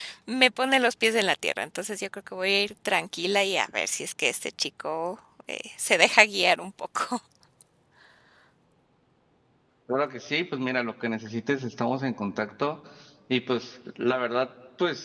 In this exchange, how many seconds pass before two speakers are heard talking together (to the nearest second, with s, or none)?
none